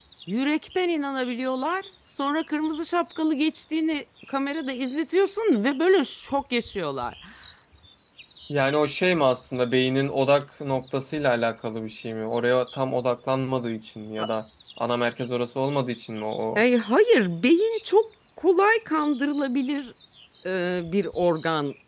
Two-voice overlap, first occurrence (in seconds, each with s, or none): none